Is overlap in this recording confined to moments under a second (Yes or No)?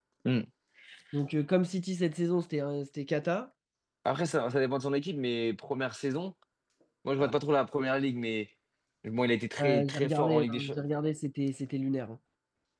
No